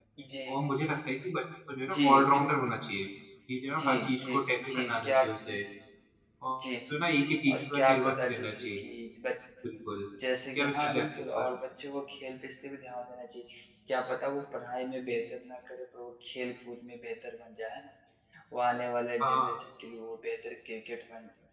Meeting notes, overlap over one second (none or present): present